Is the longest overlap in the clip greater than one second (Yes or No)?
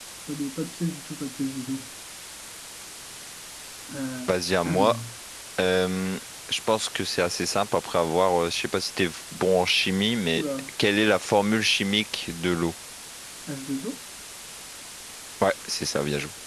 No